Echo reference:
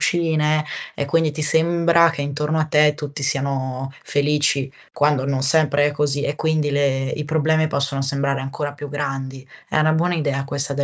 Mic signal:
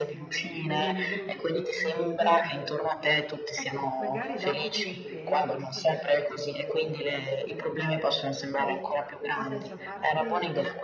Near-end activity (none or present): present